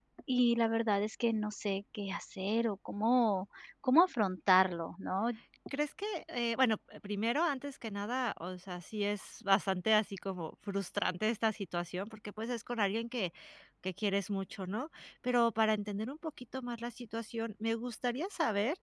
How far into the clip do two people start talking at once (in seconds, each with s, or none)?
none